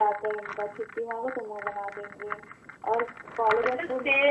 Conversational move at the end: taking over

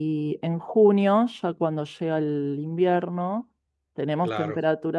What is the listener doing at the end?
listening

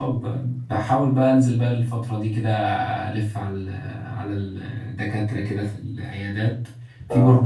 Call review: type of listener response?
listening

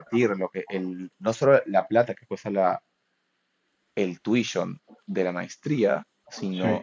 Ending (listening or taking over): listening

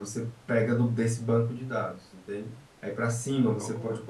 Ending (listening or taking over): listening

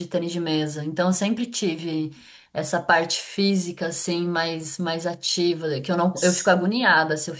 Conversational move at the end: listening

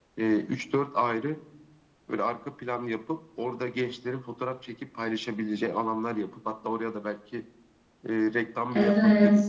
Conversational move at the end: taking over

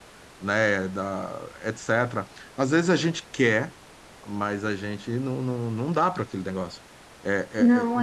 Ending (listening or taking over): listening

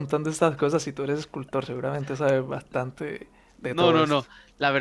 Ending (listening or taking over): taking over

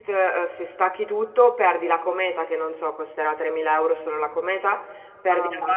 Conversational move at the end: listening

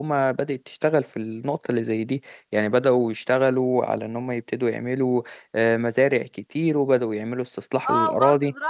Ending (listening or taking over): taking over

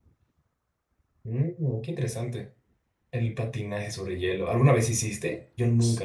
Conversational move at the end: taking over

